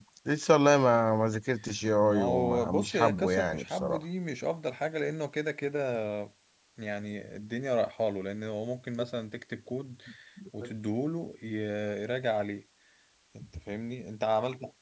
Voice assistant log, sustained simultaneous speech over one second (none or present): present